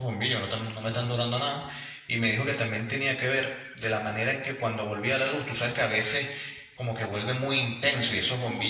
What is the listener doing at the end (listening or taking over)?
listening